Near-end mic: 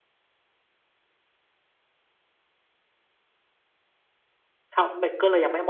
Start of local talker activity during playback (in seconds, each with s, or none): 4.7 s